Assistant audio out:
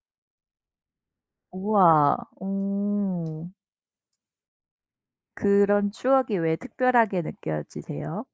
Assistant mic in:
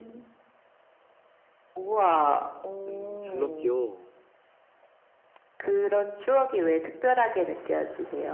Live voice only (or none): 음 줄넘기요?